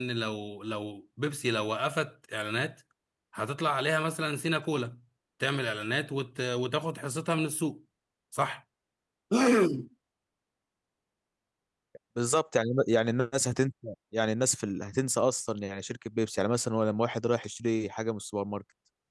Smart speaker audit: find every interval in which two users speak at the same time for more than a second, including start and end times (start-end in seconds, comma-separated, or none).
none